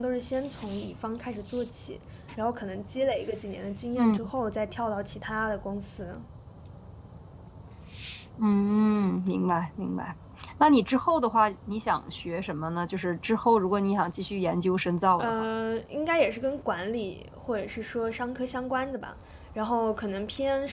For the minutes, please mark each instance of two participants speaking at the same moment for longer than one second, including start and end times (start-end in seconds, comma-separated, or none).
none